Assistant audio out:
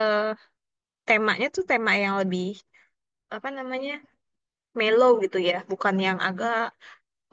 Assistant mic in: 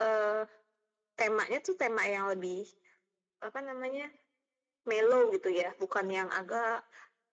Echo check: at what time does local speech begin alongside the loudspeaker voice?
none

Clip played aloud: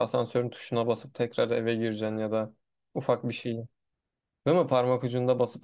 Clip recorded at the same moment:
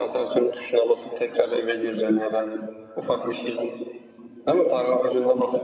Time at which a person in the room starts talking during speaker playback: none

